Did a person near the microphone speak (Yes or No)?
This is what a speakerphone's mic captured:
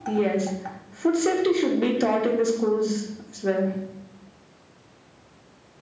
No